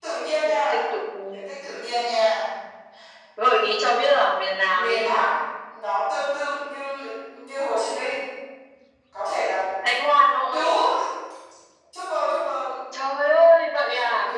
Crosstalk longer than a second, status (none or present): none